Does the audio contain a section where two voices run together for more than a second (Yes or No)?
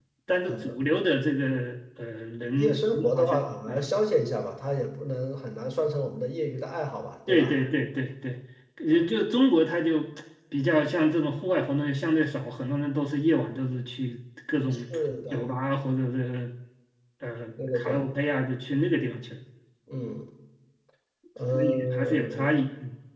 Yes